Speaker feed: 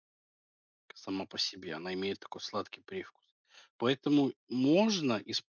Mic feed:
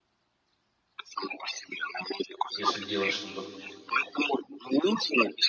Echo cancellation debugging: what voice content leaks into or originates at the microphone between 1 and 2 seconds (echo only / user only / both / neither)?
echo only